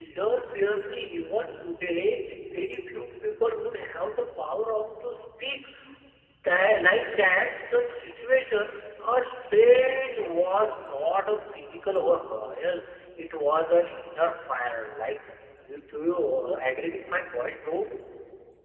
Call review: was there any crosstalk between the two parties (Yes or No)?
No